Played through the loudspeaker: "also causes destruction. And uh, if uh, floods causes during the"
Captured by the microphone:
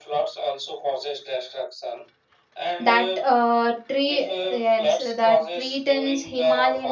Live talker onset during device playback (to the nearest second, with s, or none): 3 s